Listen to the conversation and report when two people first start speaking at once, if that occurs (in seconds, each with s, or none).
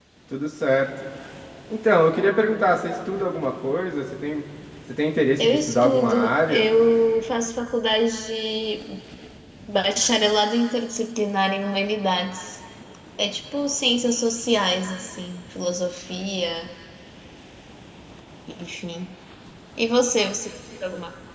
5.4 s